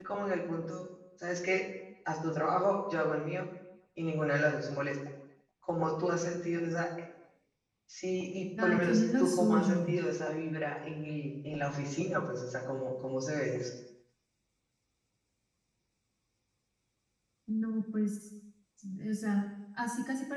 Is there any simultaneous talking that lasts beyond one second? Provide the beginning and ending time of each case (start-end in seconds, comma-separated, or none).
8.6-9.9